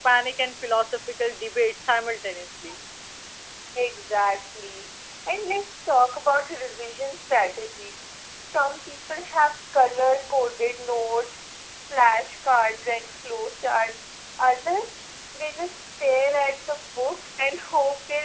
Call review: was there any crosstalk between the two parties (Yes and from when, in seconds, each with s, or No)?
No